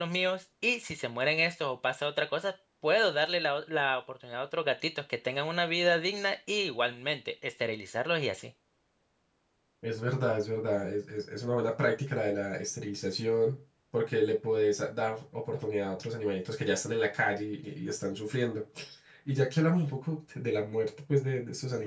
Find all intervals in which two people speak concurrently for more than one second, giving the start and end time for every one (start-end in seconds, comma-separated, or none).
none